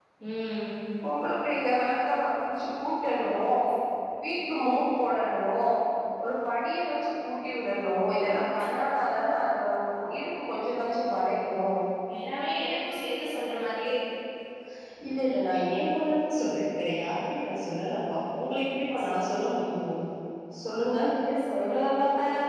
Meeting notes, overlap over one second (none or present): none